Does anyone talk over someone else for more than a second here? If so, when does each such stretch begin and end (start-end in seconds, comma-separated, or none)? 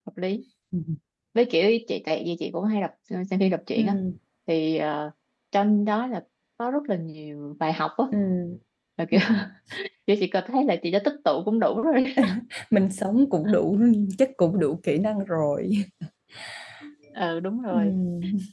none